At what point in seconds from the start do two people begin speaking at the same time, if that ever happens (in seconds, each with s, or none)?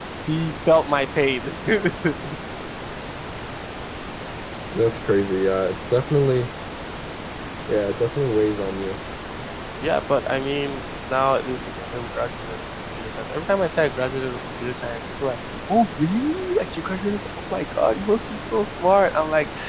none